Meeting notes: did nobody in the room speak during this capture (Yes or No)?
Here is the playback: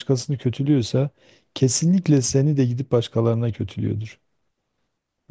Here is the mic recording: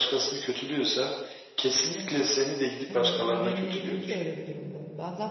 No